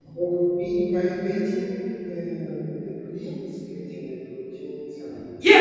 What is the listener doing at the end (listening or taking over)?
taking over